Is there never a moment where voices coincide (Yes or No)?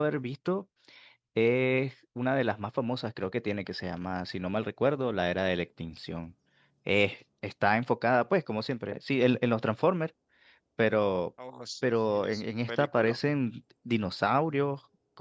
No